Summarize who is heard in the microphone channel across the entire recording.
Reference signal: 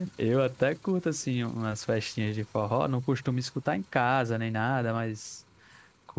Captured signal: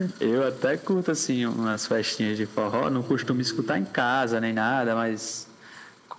both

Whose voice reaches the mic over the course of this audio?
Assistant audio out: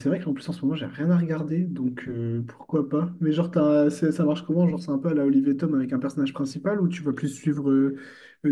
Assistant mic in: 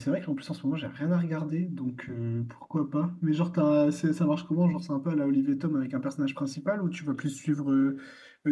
echo only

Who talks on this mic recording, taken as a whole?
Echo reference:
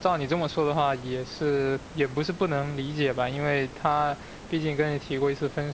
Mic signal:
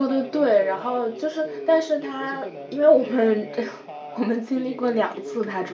both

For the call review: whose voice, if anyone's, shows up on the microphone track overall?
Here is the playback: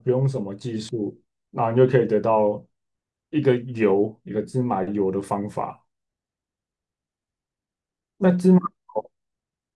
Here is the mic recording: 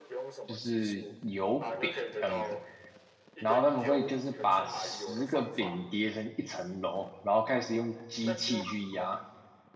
both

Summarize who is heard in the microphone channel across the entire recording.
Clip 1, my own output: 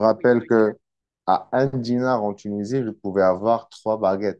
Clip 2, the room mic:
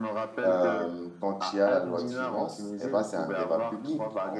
both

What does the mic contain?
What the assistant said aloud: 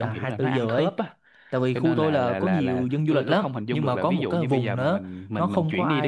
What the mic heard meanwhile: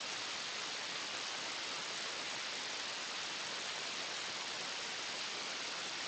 neither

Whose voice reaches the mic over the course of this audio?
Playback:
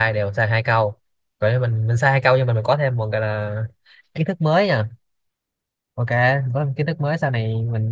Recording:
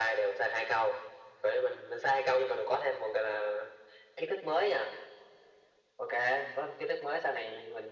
echo only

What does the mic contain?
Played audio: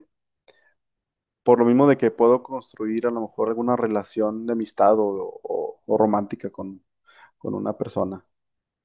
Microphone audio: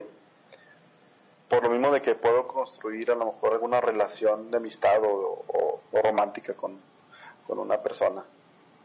echo only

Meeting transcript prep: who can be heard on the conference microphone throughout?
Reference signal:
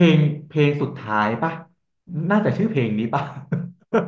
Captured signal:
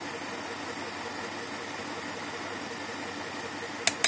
neither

